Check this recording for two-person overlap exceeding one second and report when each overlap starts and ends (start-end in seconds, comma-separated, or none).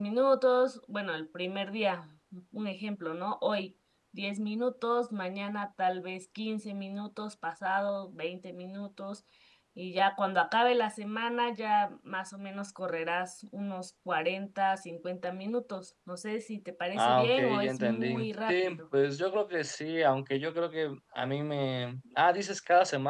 17.0-18.8